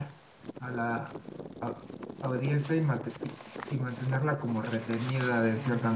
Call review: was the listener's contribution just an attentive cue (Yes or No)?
No